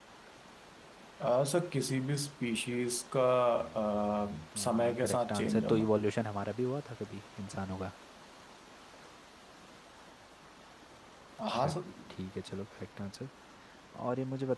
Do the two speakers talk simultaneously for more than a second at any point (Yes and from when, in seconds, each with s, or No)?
Yes, from 4.6 s